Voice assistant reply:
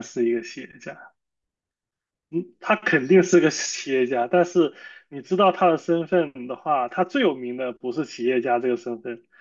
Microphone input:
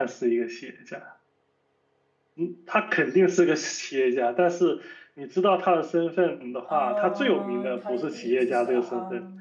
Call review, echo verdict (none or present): present